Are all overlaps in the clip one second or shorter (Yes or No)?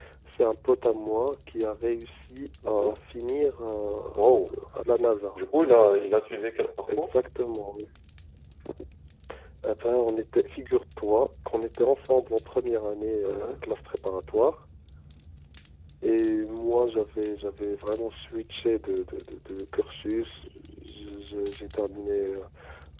Yes